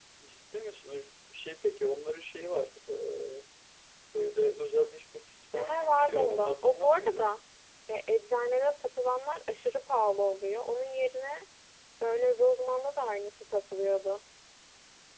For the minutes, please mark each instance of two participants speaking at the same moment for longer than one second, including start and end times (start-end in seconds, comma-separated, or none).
5.5-7.3